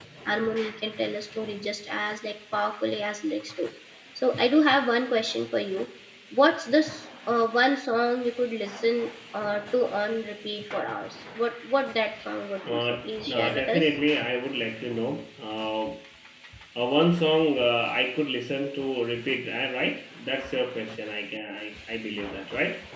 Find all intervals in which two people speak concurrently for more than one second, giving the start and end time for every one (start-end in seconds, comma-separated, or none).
12.7-13.9